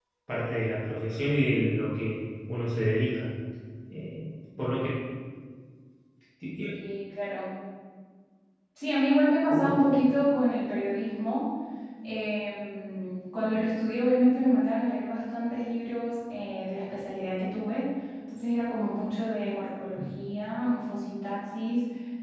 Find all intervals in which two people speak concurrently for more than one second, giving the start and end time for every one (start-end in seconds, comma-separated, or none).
none